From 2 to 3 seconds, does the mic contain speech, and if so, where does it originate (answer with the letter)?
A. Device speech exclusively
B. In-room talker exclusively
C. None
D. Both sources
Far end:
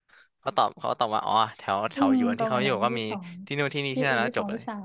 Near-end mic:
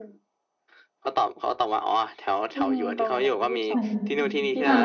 A